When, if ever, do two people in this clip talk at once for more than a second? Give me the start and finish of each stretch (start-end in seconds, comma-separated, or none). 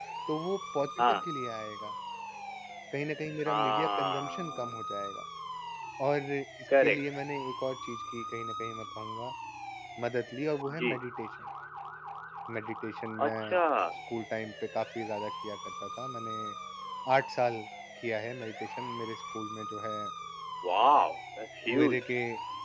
3.4-4.7